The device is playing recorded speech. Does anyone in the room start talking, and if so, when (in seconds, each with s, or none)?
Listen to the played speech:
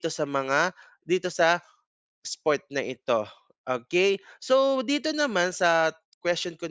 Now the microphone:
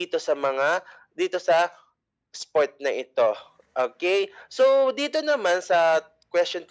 none